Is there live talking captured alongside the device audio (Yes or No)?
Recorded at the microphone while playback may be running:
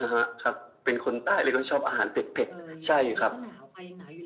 Yes